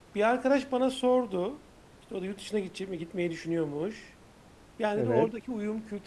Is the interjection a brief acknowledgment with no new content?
Yes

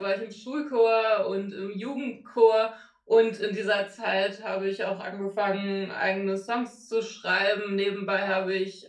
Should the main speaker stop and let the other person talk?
No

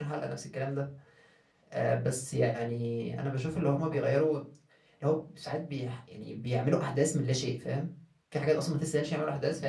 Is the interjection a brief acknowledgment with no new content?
Yes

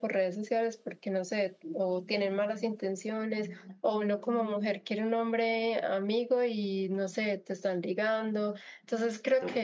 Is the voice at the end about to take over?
No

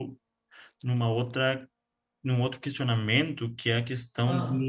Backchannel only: Yes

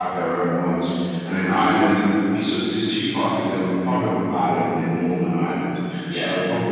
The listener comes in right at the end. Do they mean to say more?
No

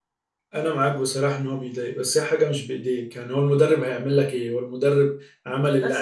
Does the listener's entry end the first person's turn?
Yes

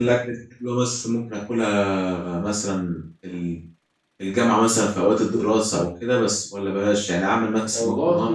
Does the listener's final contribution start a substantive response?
No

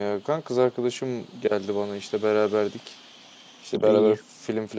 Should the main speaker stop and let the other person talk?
No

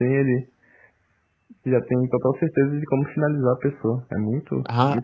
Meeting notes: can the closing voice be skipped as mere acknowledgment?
No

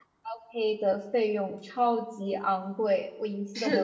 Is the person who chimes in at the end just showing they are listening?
No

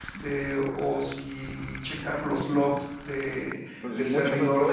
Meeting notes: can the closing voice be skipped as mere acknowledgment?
No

